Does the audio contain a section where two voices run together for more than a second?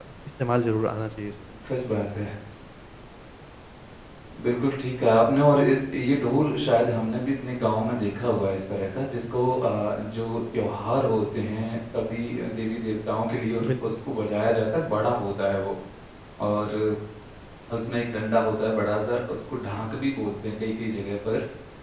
No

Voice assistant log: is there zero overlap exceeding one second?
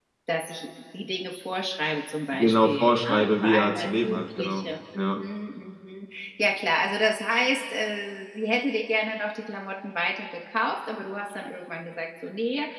No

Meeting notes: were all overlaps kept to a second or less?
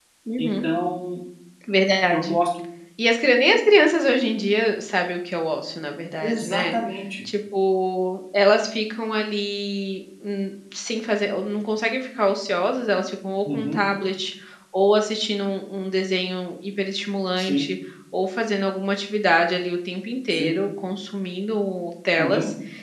Yes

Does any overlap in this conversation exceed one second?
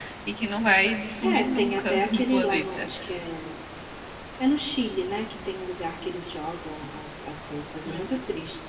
Yes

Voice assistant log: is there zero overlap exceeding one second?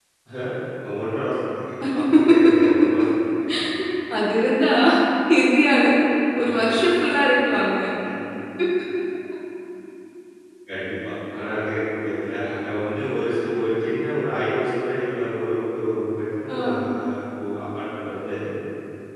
Yes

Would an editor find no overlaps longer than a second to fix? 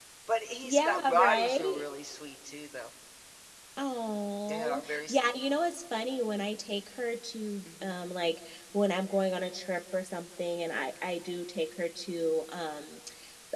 No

